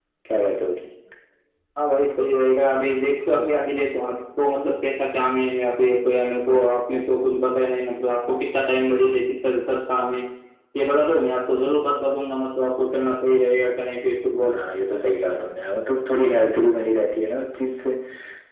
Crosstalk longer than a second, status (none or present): none